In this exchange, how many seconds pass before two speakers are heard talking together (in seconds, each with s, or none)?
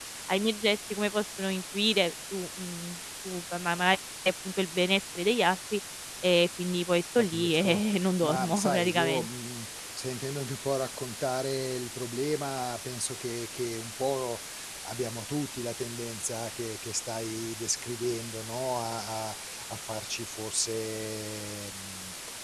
7.2 s